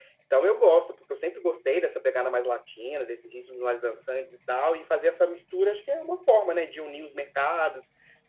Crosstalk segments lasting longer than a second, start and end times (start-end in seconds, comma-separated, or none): none